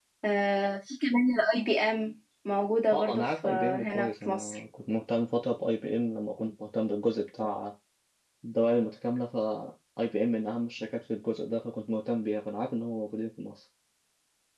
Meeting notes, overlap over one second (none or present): present